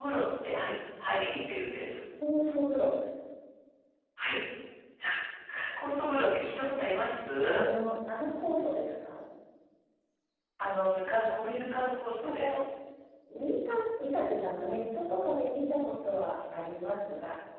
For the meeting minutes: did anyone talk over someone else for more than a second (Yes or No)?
No